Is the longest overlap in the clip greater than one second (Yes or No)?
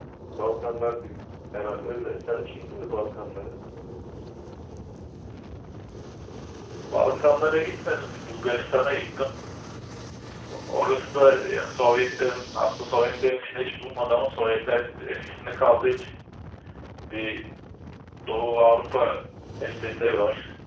No